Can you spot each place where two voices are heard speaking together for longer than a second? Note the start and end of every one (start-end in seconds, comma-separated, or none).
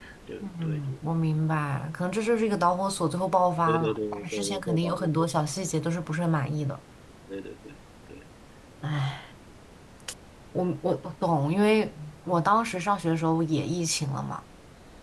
3.7-5.1